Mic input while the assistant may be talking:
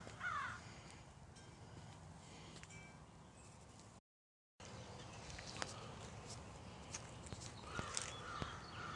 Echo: none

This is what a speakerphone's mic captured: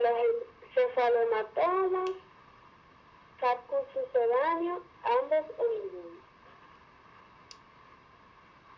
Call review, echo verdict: present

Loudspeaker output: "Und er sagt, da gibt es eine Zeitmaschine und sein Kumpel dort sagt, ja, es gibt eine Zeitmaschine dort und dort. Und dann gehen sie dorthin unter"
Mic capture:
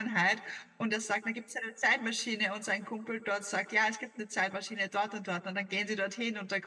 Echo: present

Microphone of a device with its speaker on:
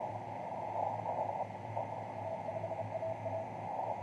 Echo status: none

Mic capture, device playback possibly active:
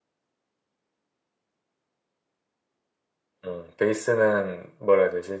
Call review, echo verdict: none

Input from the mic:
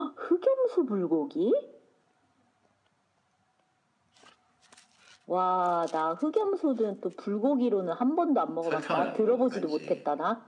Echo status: present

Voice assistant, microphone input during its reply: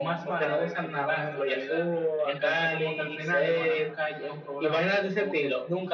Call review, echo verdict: present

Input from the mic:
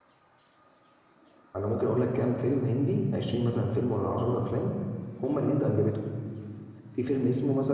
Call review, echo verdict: none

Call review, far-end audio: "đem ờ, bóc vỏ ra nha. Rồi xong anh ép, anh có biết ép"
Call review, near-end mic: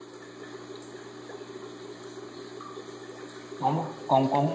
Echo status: none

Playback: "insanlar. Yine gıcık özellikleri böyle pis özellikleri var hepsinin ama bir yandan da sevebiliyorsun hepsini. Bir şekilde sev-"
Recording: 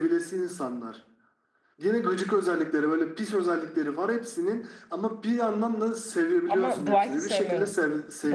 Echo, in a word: present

